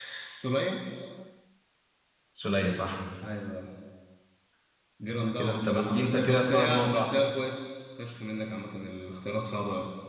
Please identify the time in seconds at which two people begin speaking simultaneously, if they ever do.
5 s

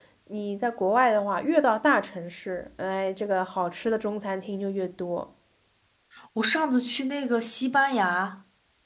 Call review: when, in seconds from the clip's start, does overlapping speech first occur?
none

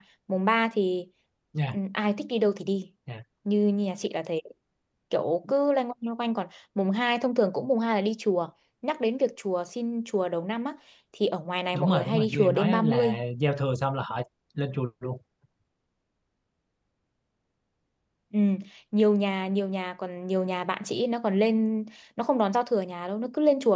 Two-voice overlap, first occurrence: 12 s

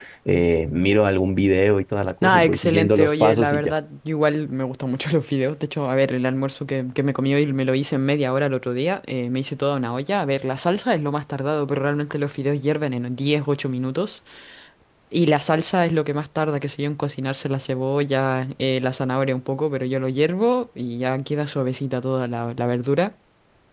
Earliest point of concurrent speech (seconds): 2 s

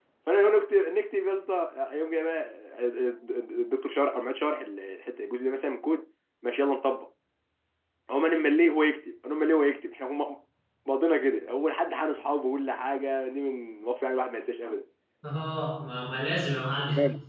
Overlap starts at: none

